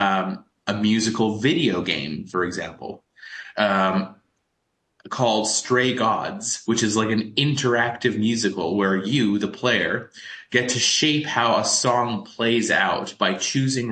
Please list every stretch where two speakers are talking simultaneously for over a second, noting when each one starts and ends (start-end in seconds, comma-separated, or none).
none